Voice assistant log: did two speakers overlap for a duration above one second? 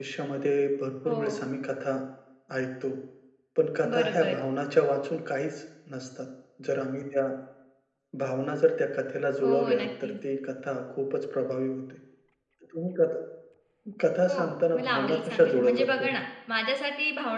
Yes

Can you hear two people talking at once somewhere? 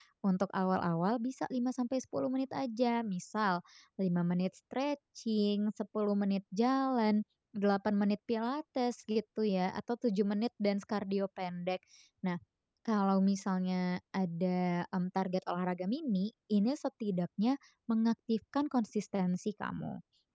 No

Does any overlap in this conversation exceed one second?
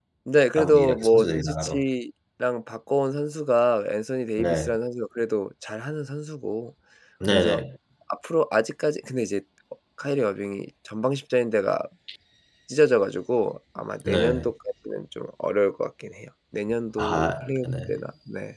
Yes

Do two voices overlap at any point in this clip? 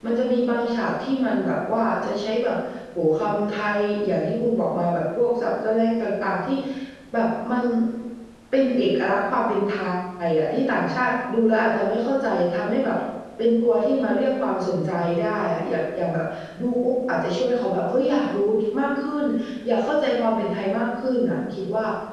No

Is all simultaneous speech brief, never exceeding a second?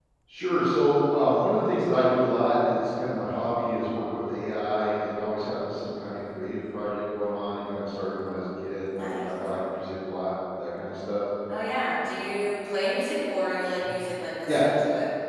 Yes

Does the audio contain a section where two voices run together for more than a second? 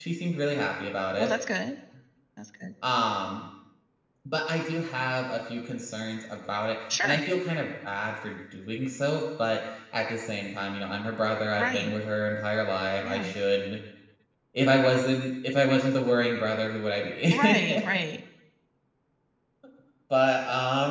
No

